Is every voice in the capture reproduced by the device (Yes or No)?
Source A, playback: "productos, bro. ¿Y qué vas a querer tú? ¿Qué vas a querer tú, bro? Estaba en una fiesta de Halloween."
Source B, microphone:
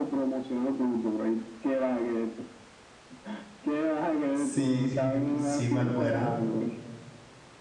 No